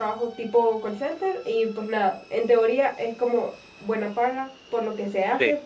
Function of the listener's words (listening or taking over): listening